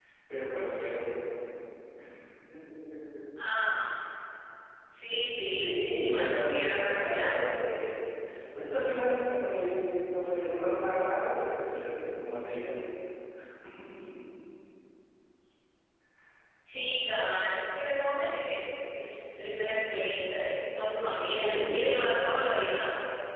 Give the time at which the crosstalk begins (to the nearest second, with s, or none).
5 s